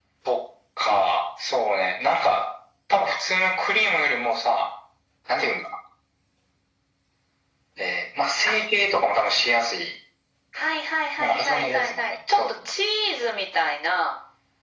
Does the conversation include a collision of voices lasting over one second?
Yes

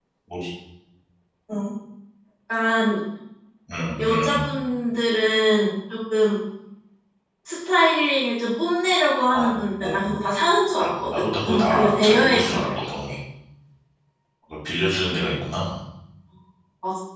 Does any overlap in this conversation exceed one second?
Yes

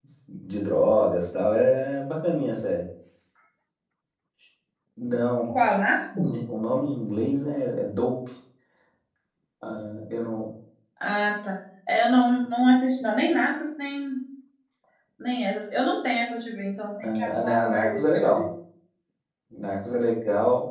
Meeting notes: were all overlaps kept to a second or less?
No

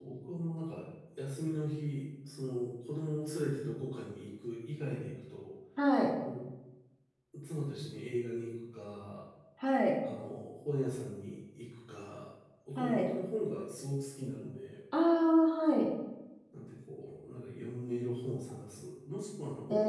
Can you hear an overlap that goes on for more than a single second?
No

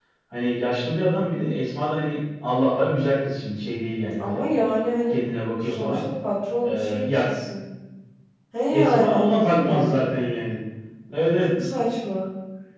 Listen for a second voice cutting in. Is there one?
Yes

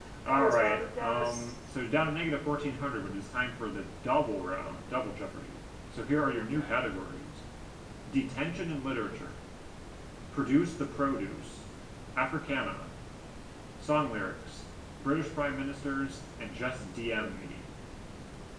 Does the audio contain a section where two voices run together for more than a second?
Yes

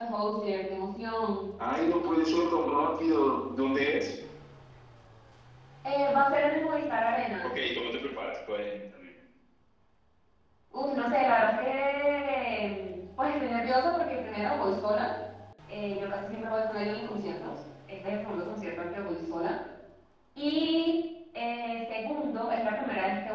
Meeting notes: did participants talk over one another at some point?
No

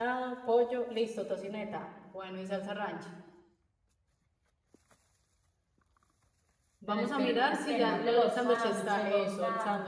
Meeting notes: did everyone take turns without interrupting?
No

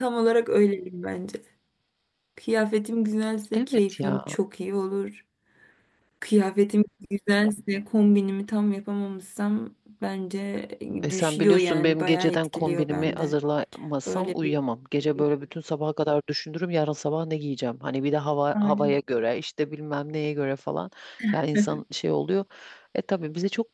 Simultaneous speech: Yes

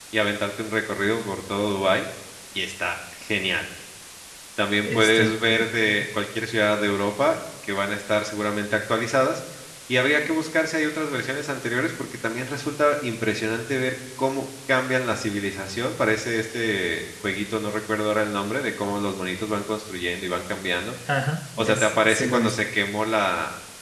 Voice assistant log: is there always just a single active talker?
No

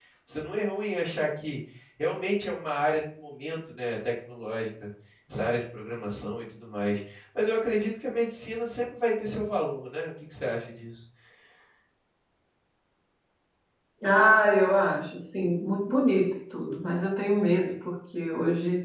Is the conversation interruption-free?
Yes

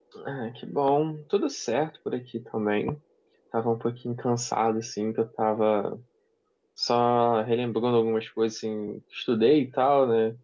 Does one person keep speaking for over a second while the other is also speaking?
No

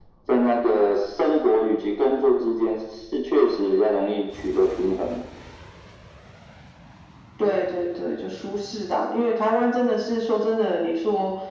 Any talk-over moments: No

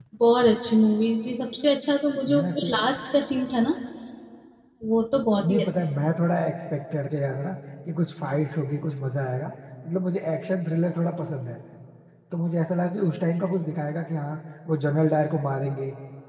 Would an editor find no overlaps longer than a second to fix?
Yes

